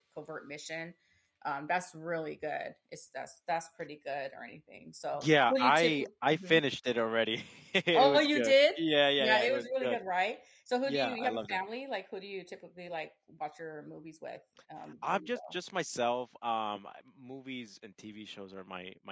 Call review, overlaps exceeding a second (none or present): present